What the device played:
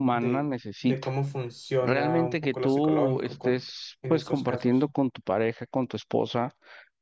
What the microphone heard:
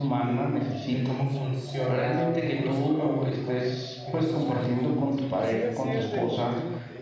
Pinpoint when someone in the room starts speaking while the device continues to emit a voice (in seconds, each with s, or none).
5.4 s